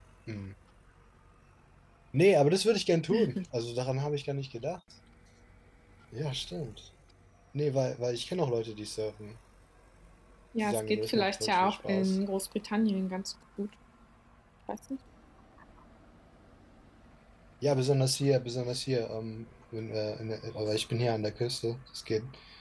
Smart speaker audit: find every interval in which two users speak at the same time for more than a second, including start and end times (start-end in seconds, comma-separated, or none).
10.6-12.2